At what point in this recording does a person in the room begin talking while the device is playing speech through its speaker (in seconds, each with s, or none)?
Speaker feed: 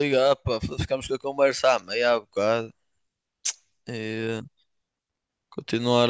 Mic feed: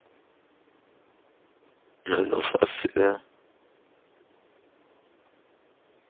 2.0 s